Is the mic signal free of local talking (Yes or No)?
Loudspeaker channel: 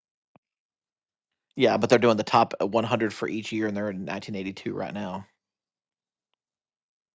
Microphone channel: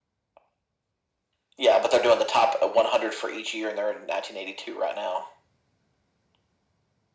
Yes